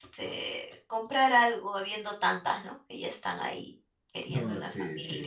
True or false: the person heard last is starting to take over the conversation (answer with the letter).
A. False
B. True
B